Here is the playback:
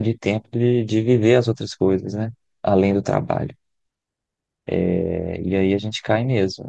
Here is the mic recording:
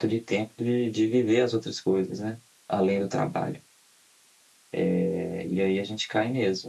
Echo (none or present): present